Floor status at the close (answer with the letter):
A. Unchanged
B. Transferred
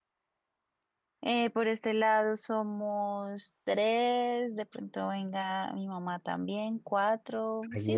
B